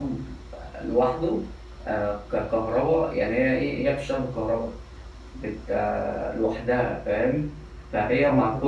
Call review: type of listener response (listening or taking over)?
taking over